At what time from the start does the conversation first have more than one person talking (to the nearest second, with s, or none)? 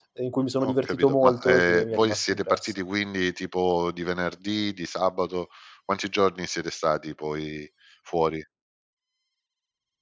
1 s